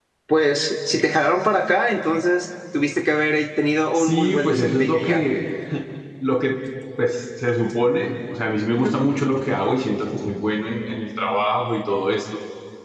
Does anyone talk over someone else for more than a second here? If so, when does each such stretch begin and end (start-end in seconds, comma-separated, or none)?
4.0-5.2